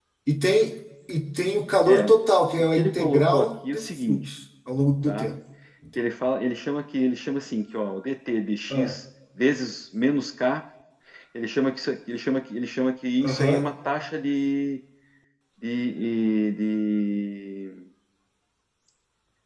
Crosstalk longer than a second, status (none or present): present